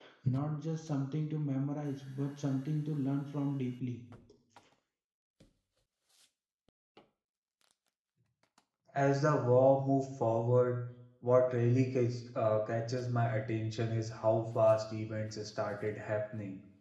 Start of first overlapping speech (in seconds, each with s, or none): none